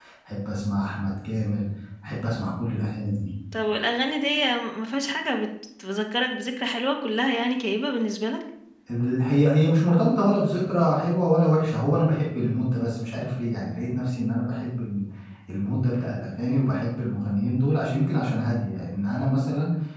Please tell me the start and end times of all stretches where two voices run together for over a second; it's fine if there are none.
none

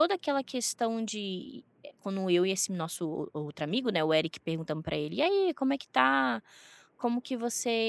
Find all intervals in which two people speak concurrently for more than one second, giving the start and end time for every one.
none

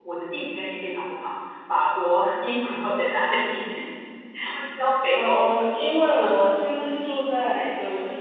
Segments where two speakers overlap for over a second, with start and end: none

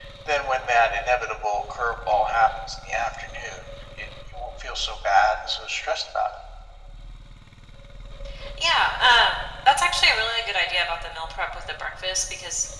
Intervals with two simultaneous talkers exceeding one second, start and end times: none

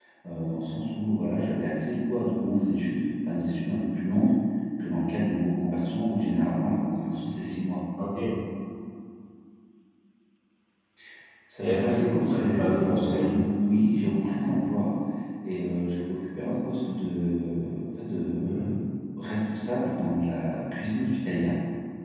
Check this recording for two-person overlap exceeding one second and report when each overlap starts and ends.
11.6-13.3

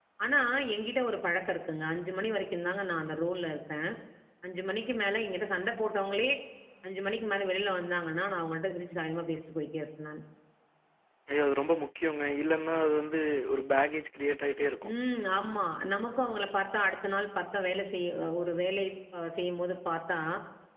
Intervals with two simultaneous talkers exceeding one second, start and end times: none

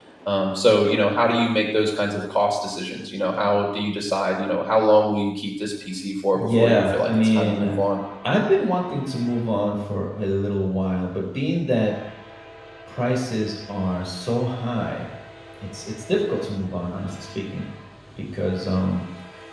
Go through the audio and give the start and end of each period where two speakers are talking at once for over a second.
6.3-7.7

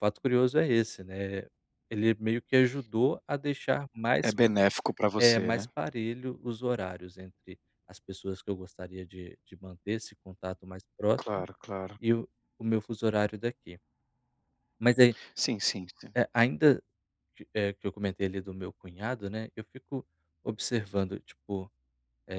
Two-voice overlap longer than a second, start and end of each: none

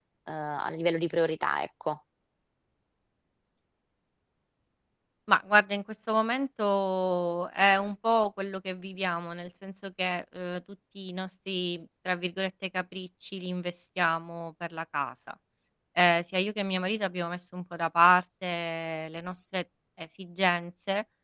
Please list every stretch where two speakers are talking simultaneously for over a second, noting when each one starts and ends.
none

